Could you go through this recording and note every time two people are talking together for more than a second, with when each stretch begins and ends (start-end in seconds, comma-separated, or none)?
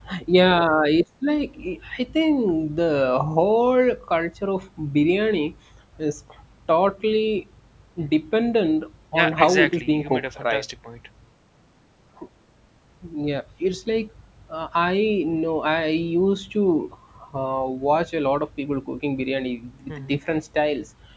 9.1-10.6